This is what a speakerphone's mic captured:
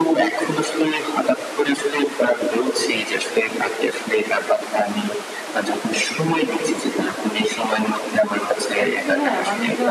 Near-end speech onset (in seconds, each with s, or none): 8.8 s